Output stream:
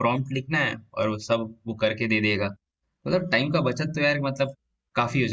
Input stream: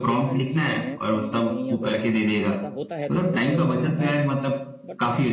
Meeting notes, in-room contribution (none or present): present